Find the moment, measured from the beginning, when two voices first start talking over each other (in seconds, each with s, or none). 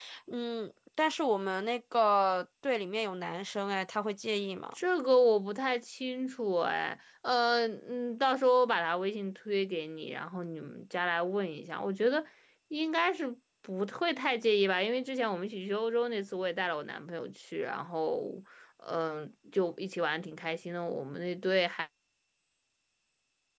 none